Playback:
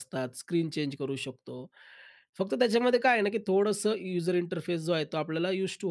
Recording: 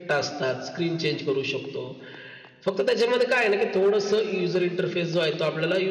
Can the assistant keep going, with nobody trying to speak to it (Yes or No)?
Yes